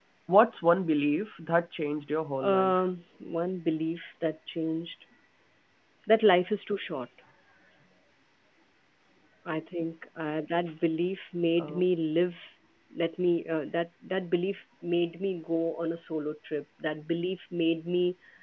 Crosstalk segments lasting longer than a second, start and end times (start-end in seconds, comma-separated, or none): none